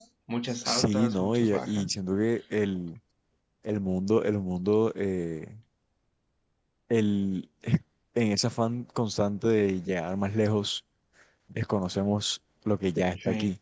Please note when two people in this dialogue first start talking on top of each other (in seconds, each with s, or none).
0.7 s